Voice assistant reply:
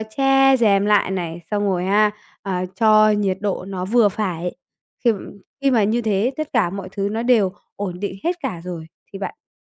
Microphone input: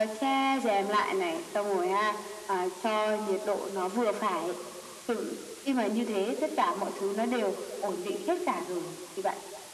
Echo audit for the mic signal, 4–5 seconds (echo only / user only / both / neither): echo only